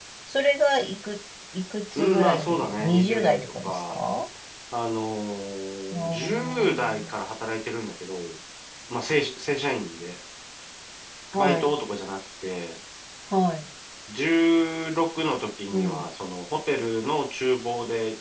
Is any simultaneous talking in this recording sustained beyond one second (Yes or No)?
Yes